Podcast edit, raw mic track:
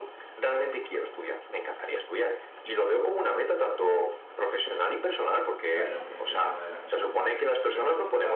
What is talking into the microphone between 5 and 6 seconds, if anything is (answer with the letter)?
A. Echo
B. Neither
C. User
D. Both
D